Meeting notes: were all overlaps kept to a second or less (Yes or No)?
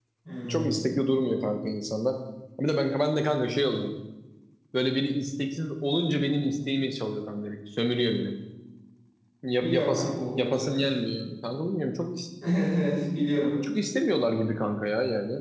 No